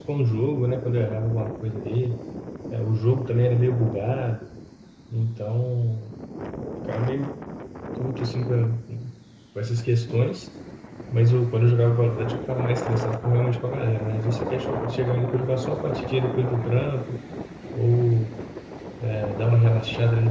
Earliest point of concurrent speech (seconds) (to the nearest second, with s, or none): none